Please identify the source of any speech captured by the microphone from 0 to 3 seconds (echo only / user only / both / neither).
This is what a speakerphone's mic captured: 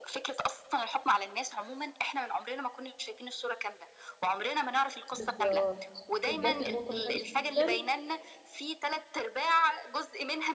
echo only